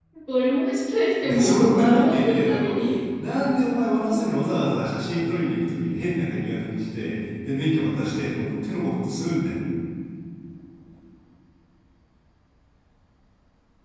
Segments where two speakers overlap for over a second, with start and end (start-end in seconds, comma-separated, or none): 1.2-2.8